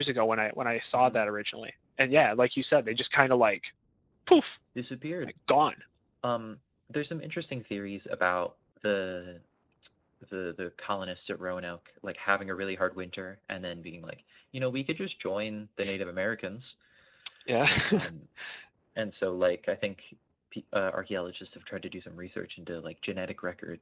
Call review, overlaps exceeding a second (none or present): none